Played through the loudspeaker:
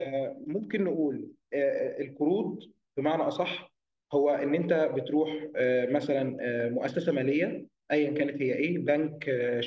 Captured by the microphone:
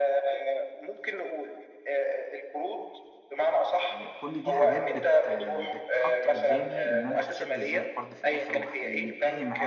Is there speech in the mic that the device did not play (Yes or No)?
Yes